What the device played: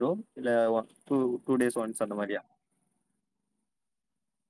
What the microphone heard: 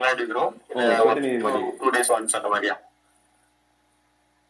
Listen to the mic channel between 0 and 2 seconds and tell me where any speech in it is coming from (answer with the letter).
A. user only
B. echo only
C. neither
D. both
D